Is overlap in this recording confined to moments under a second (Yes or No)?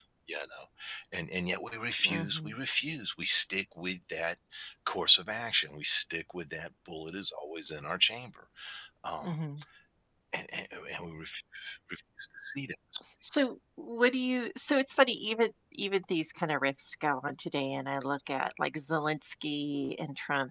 Yes